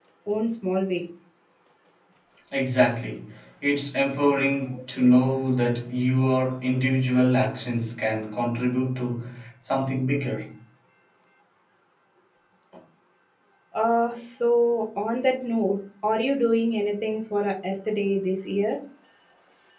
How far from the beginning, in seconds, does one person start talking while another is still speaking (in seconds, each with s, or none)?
none